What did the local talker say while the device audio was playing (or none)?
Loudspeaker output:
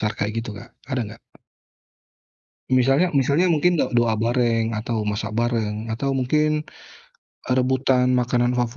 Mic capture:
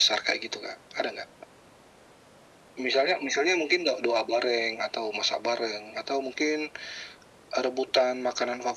none